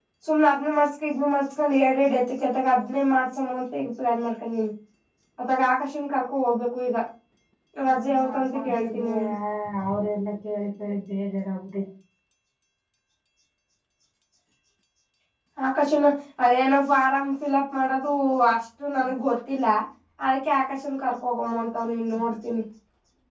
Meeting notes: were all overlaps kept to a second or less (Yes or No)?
No